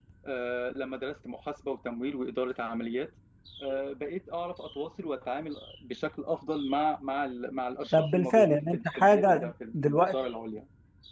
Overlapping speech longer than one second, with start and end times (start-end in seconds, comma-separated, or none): 7.9-10.2